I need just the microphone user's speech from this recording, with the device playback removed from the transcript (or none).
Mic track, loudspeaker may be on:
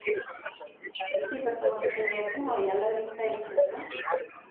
Sí, pues como que tenía como ya la lista hecha, ¿no?